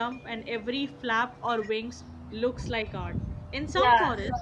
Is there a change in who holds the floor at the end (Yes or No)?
Yes